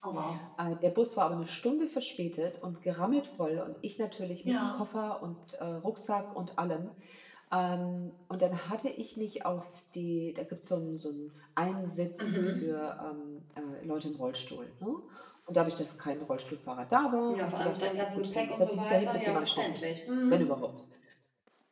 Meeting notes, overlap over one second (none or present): present